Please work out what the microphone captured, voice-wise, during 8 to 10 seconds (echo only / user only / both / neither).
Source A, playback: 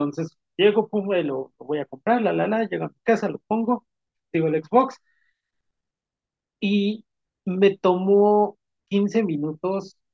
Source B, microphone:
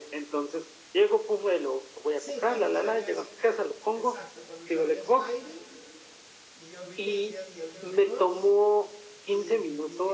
both